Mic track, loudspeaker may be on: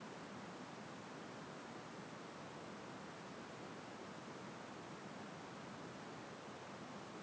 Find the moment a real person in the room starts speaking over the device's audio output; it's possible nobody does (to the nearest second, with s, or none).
none